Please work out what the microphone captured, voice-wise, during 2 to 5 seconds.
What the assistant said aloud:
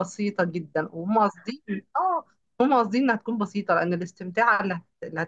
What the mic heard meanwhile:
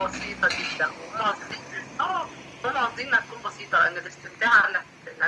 echo only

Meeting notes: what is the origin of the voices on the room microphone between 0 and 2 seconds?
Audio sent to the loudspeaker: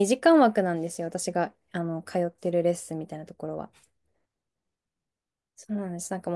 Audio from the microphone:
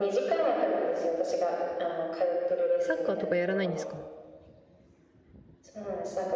echo only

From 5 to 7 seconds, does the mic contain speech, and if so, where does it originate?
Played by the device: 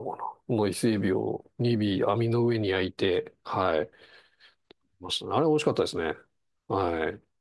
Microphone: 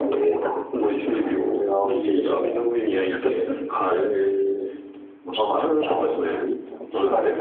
both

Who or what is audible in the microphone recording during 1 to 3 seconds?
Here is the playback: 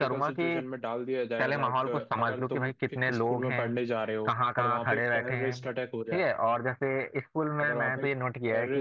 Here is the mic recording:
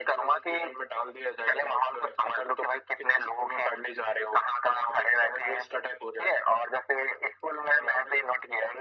echo only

